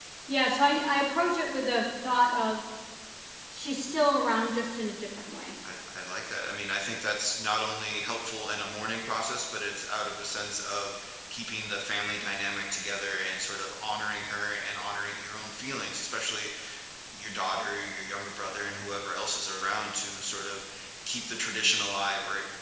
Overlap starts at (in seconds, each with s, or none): none